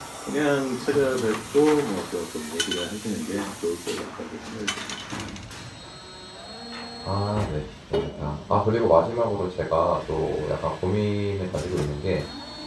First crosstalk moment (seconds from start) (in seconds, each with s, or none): none